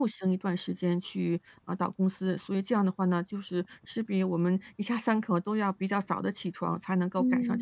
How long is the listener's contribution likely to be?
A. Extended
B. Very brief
A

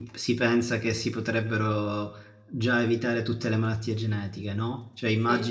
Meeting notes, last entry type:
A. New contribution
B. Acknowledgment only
B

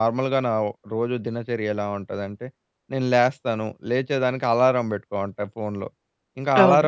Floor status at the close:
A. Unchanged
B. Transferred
A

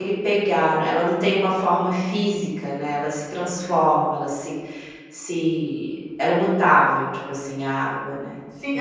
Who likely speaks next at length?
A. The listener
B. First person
A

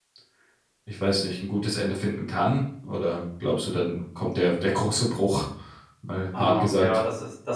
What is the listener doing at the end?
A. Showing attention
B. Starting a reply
B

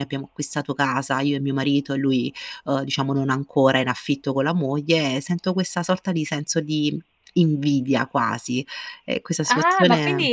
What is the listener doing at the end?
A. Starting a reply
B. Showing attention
A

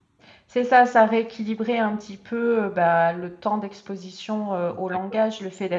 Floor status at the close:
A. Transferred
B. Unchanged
B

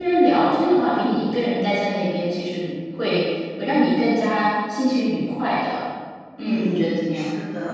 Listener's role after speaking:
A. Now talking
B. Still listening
A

